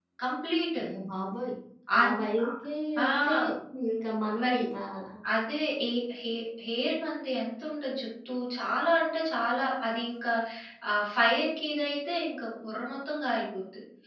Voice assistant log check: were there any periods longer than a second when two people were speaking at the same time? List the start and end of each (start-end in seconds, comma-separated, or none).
none